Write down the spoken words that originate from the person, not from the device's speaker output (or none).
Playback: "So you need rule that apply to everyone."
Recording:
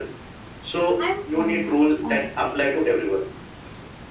I'm torn, ac- honestly.